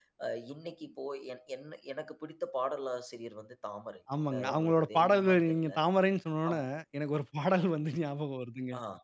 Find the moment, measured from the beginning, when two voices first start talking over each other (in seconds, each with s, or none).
4.1 s